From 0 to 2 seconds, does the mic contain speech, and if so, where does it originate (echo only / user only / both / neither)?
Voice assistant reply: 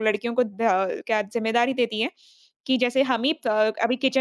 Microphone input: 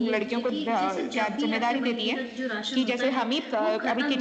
both